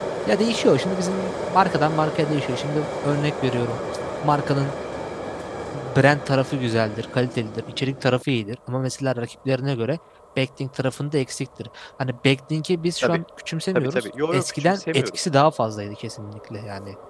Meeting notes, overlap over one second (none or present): present